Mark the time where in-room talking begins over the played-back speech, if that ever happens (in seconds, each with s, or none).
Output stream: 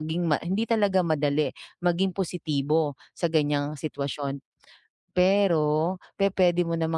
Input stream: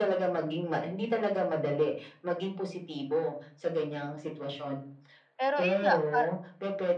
5.4 s